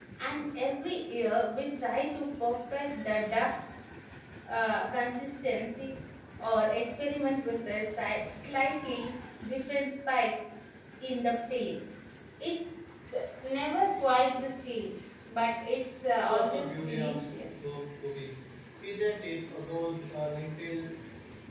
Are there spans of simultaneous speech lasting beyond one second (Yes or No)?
Yes